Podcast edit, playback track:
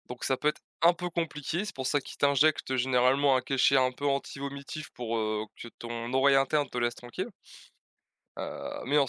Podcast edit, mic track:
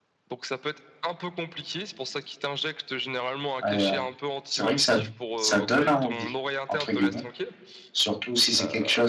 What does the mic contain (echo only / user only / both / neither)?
both